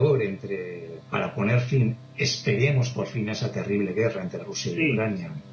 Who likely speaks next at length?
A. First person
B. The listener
B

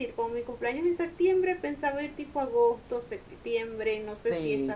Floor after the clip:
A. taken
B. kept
A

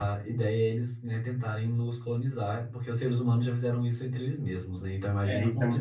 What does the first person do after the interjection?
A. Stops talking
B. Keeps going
A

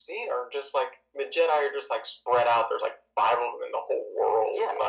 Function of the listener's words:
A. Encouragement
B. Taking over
B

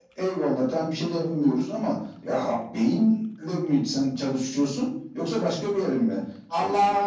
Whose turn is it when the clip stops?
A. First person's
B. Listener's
B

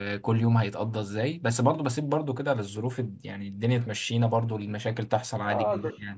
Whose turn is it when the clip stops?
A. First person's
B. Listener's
B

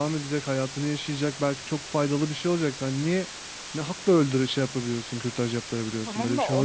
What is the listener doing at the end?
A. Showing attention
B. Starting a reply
B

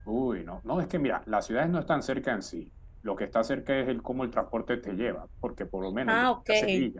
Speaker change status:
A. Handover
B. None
B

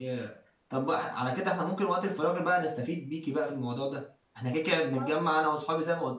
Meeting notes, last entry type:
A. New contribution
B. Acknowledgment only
B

